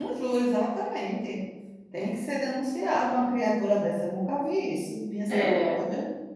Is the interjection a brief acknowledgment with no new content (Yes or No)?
No